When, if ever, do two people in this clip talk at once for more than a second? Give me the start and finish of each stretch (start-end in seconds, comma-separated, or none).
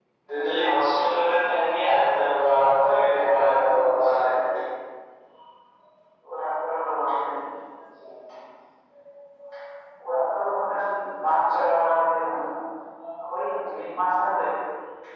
2.8-4.4